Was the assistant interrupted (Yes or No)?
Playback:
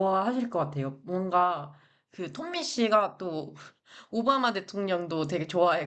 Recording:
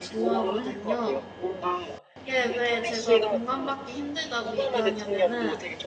Yes